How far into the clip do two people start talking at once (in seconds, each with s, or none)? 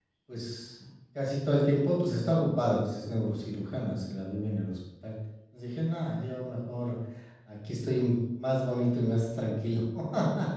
none